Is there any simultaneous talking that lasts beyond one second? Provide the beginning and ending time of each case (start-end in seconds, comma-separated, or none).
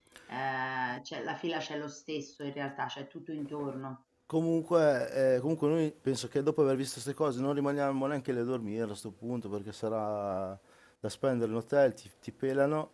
none